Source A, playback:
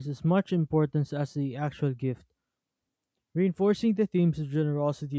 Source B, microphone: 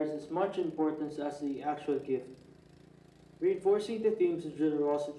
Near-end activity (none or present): none